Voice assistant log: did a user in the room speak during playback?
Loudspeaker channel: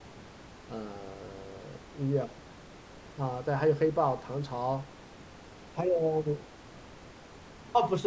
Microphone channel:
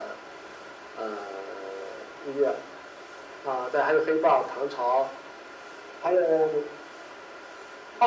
No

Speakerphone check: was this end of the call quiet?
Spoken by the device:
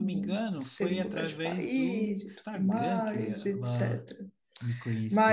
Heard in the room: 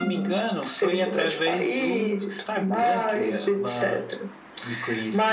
Yes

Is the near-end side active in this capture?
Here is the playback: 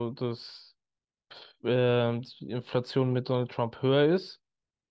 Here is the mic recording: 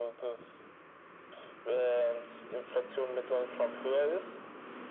No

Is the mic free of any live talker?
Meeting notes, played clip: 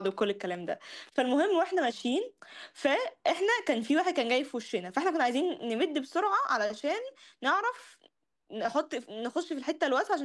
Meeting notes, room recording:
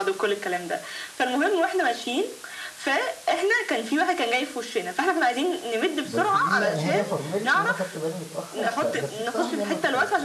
No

